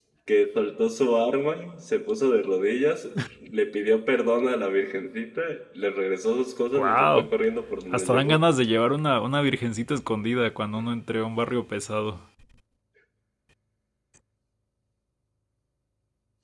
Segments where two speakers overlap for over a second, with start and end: none

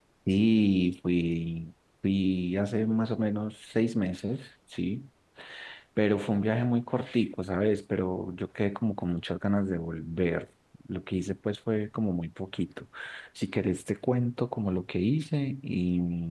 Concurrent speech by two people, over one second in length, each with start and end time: none

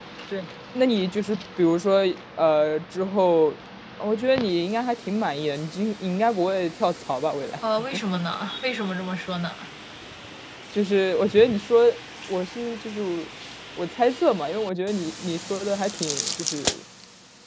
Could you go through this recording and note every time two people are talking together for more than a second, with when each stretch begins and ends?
none

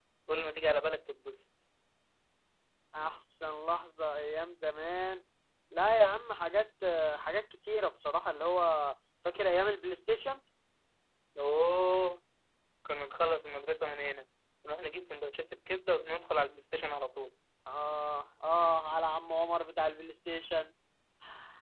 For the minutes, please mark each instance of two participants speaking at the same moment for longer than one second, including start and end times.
none

